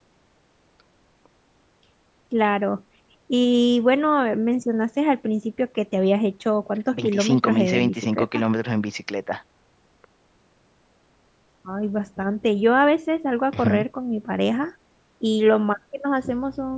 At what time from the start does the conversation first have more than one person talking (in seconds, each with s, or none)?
6.9 s